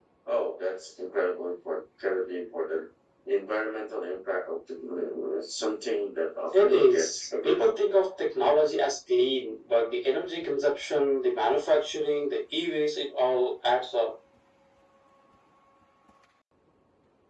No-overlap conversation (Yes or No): No